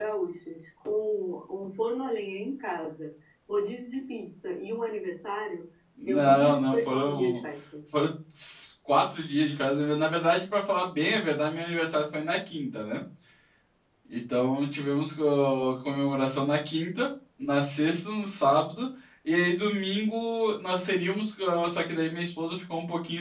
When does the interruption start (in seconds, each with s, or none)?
6.1 s